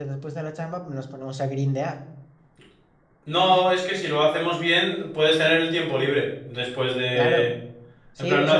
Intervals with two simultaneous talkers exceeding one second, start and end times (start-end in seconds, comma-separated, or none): none